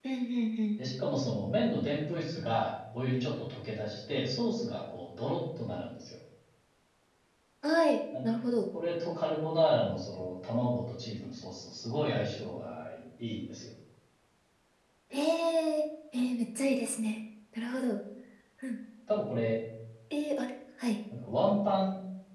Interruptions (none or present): none